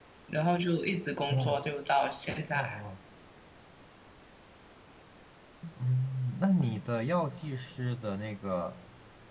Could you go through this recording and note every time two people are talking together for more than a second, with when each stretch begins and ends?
none

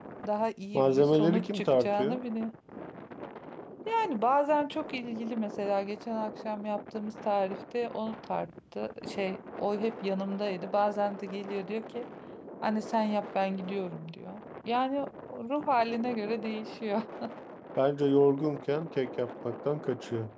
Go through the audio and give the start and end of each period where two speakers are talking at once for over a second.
0.7-2.2

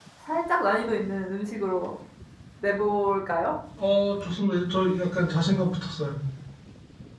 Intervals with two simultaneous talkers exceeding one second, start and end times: none

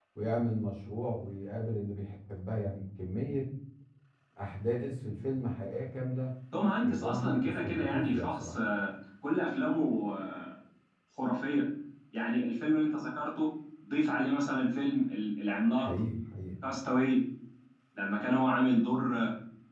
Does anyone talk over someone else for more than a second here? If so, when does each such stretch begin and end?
6.8-8.6

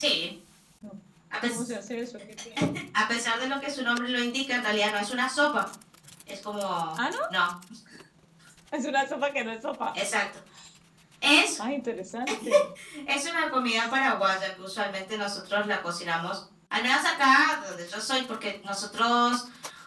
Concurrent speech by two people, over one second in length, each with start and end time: none

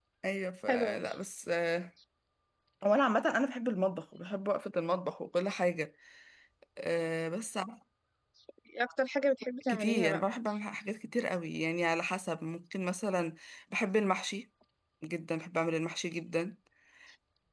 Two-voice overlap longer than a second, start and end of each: none

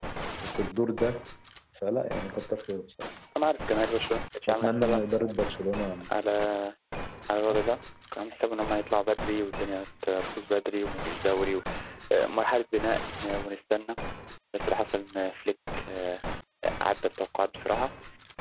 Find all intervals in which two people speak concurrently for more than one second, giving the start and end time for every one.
none

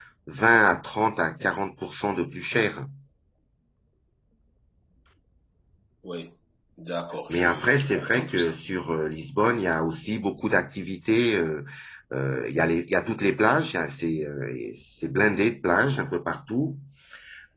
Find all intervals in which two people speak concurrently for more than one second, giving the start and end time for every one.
7.3-8.5

